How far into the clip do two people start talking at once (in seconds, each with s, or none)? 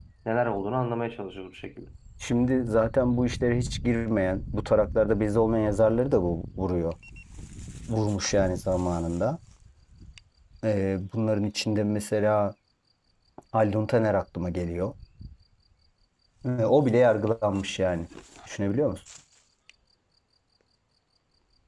none